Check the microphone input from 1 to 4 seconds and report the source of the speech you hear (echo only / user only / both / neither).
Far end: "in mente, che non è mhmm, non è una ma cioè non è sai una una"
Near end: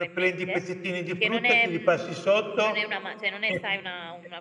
both